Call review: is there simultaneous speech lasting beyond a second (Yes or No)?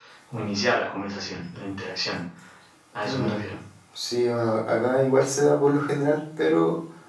No